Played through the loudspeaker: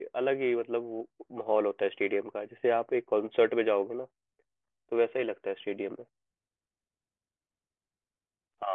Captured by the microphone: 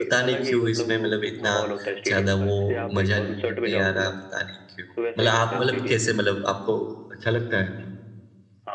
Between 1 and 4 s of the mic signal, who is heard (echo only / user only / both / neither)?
both